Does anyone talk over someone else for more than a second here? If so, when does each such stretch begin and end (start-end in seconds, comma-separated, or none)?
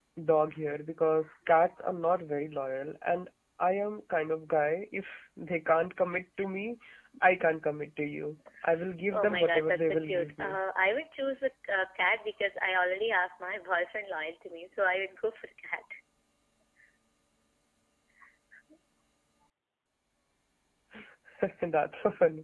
9.1-10.6